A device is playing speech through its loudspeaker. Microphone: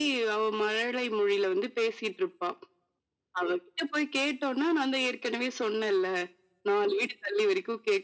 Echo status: present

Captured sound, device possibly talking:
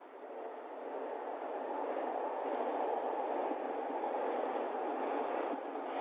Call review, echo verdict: none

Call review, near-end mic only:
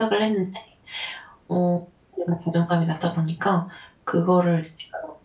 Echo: none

